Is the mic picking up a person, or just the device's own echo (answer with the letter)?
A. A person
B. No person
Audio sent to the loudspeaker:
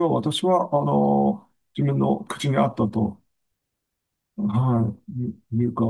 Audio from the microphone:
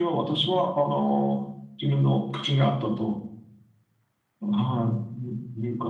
B